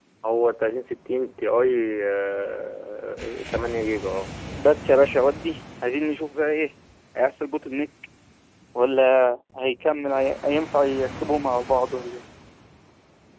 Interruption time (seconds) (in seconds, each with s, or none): none